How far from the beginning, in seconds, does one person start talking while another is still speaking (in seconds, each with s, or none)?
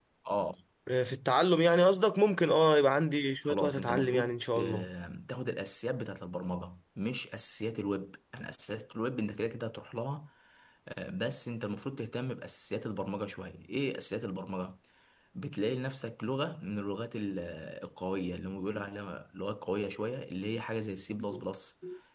3.5 s